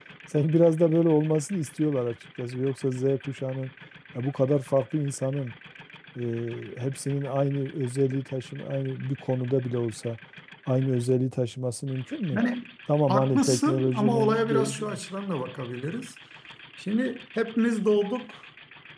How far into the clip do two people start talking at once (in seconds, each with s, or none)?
13.1 s